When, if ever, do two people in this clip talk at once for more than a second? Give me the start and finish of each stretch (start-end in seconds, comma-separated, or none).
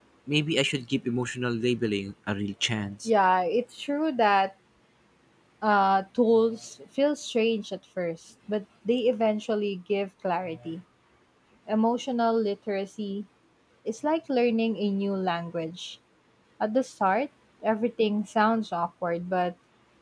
none